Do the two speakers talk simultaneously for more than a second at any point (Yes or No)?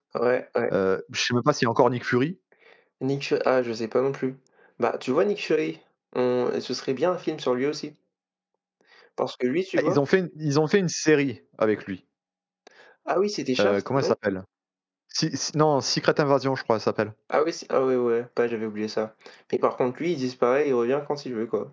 No